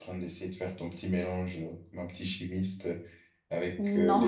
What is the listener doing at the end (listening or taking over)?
listening